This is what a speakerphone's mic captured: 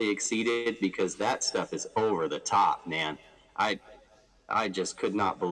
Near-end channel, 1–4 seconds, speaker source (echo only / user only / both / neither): echo only